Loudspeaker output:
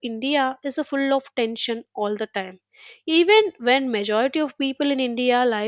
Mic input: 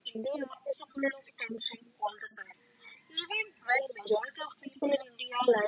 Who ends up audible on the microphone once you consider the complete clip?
echo only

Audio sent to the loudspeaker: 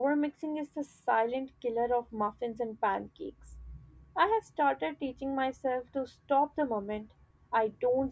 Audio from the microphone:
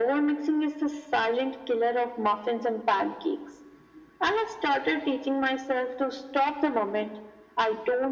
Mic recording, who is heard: echo only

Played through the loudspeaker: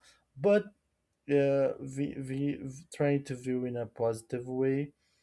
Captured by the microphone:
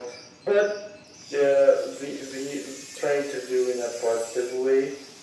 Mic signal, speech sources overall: echo only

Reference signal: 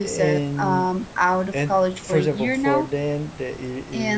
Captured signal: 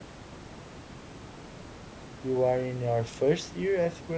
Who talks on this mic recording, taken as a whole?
user only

